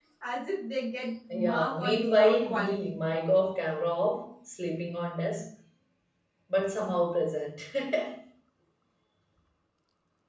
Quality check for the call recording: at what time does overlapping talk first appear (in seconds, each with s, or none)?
1.3 s